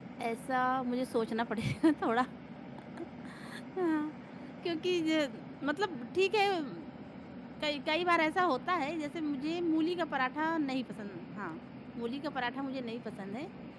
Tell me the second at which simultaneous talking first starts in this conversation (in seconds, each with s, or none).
none